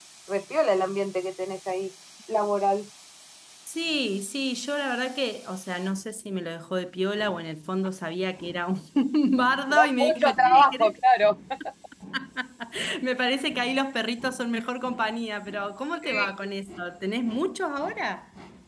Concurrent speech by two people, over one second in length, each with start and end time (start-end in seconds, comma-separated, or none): 9.7-10.9